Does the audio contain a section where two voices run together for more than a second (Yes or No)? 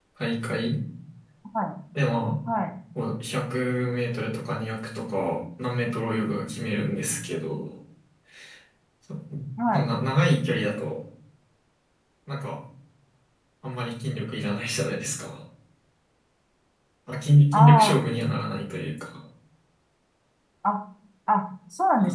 No